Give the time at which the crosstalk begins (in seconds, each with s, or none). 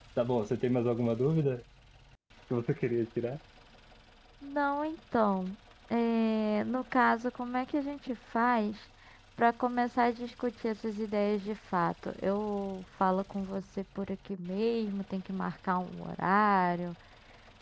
none